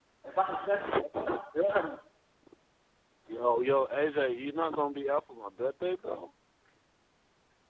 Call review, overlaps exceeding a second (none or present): none